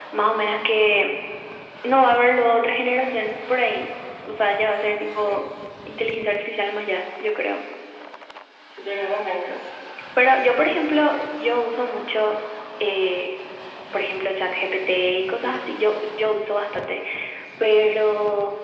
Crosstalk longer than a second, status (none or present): none